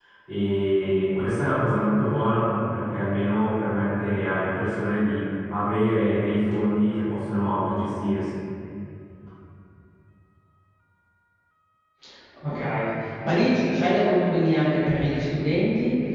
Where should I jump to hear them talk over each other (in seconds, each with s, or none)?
none